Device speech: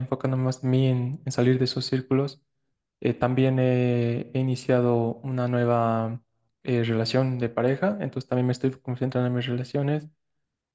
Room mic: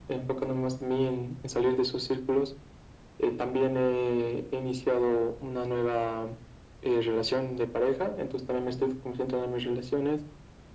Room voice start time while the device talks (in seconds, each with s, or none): none